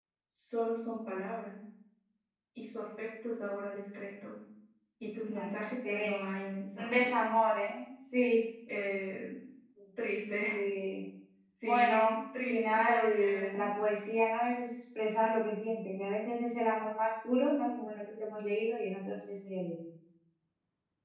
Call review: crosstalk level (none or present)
present